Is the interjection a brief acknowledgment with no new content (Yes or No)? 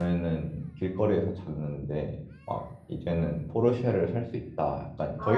No